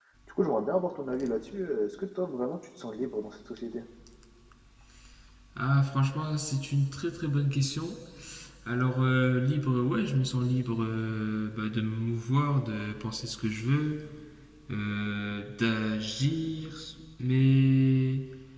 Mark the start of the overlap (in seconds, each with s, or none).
none